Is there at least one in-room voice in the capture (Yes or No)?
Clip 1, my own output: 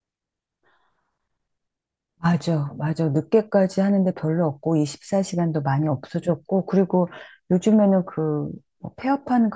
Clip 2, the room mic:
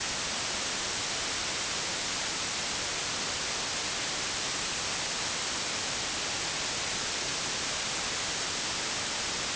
No